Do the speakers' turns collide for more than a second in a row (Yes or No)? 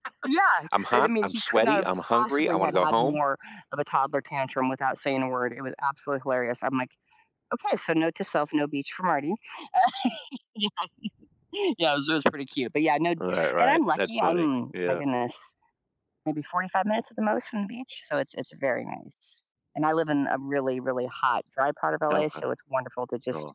Yes